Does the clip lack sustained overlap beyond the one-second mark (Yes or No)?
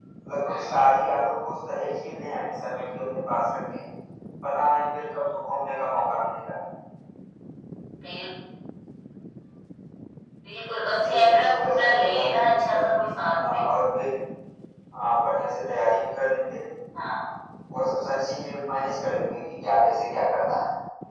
No